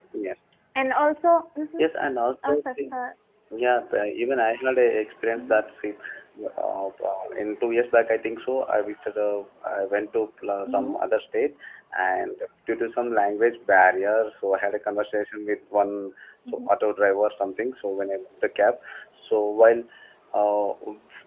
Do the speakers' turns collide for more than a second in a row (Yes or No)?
No